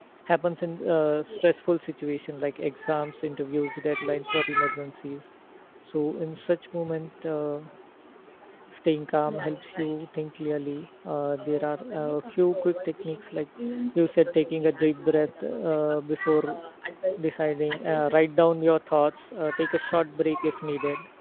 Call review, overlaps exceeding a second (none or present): present